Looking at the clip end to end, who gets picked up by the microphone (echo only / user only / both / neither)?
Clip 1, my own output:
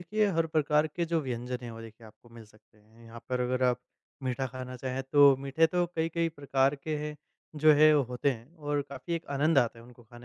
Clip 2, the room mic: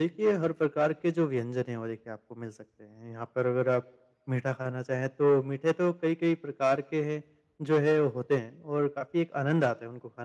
echo only